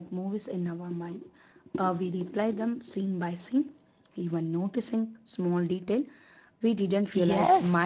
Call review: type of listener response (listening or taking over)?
taking over